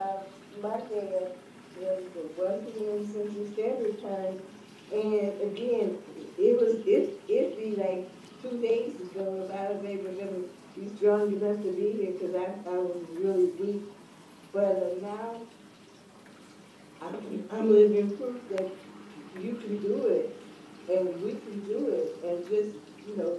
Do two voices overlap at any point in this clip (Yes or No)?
No